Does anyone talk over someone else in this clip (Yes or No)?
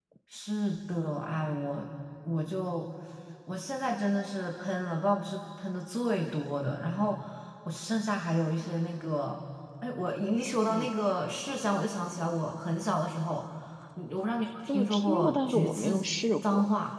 Yes